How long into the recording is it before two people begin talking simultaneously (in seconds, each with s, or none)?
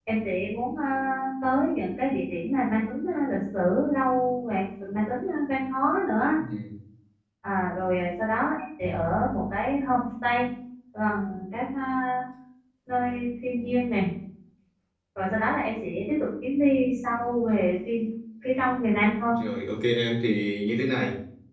none